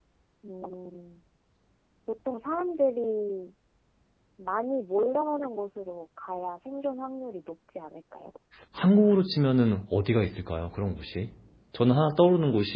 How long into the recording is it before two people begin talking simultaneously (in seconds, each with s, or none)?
none